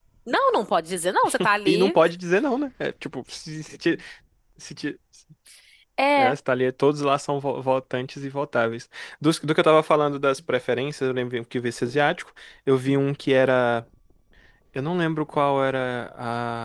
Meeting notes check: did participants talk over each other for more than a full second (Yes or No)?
No